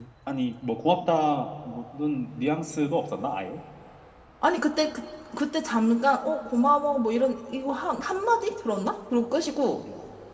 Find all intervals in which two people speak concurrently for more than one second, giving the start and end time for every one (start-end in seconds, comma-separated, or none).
none